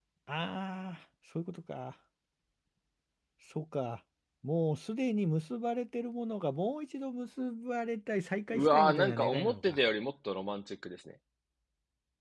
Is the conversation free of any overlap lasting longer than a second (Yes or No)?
No